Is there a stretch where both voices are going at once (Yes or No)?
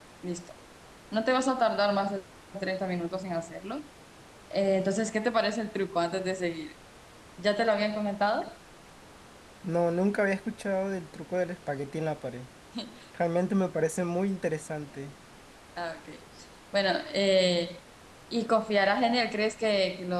No